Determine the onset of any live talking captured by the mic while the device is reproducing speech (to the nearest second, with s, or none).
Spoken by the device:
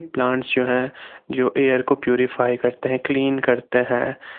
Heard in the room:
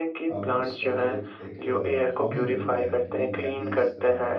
0 s